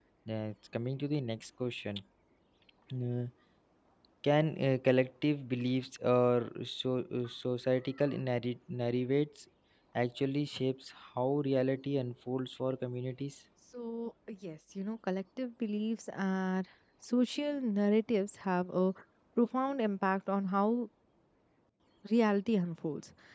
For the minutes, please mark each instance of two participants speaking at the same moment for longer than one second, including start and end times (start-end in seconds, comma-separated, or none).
none